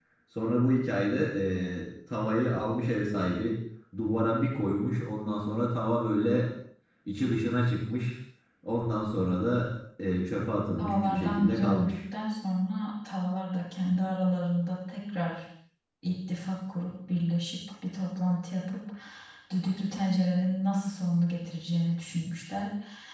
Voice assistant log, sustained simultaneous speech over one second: present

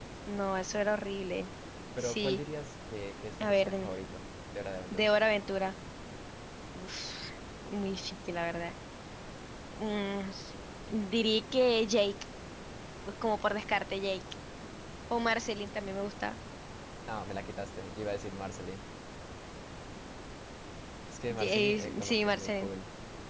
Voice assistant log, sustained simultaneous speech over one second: present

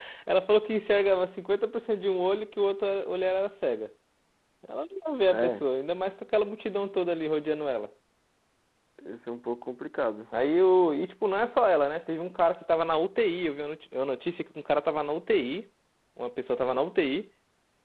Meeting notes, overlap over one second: none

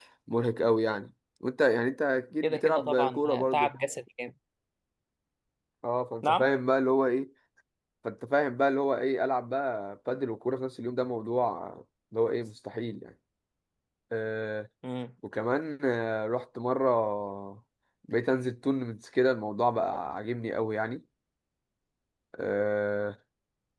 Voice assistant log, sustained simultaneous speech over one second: present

